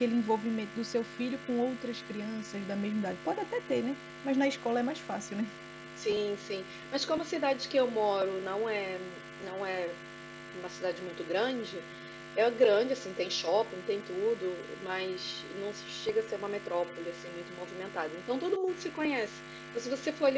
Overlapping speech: No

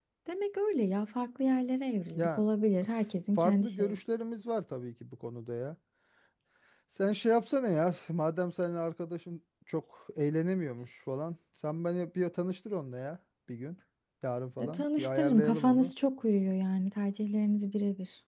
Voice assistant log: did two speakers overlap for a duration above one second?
Yes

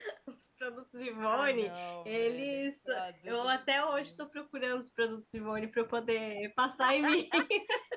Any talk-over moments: Yes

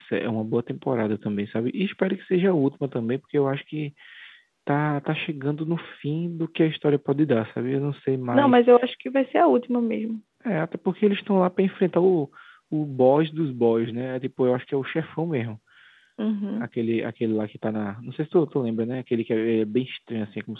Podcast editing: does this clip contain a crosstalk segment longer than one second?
No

